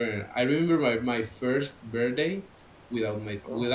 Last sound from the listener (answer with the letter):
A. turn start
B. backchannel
B